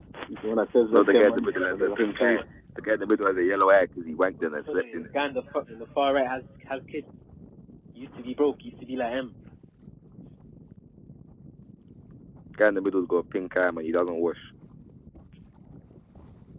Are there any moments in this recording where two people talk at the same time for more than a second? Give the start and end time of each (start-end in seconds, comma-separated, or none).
0.9-2.4